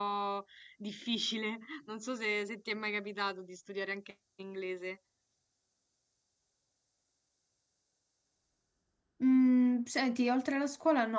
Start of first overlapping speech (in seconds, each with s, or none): none